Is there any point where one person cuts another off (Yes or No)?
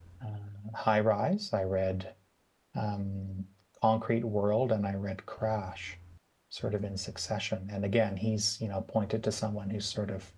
No